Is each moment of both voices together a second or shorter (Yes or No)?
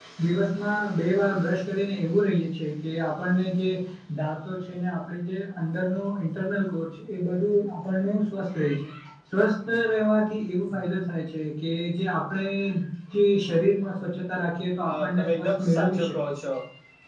No